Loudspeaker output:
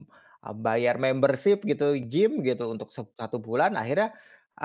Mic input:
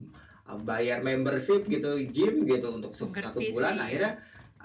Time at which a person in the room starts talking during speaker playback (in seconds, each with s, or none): 3.0 s